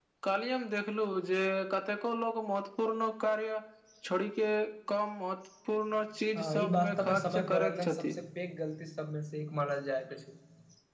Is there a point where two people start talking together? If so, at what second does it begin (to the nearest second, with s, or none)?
6 s